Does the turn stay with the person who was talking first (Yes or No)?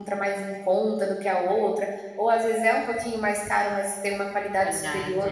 Yes